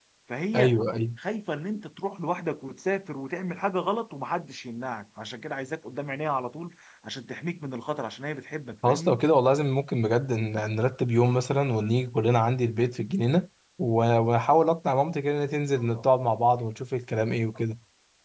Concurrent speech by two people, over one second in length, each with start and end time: none

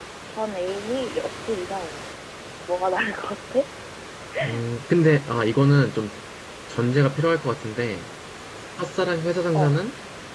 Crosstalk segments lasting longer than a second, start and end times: none

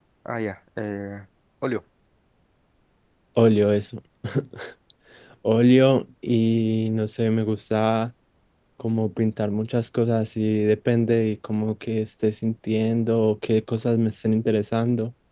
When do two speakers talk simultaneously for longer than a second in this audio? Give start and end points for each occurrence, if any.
none

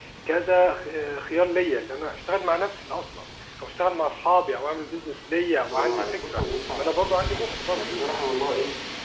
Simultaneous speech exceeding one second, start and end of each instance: 5.7-7.8

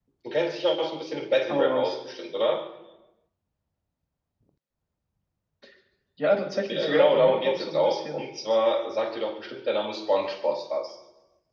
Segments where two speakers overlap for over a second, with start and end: 6.7-8.2

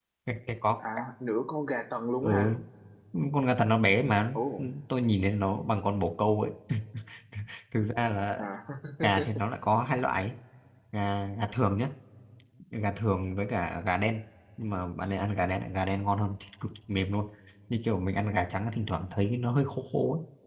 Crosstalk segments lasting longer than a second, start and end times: none

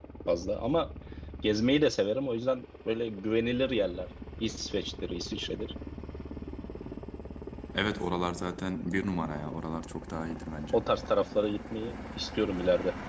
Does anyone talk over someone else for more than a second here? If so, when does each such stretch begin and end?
none

